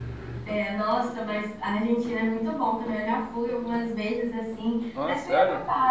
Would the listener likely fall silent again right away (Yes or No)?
Yes